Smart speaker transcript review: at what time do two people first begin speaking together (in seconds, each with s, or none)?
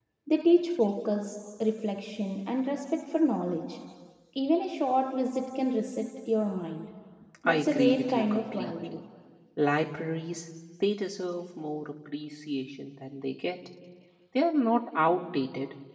7.5 s